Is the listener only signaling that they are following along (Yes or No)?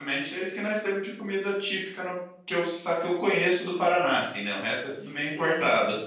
No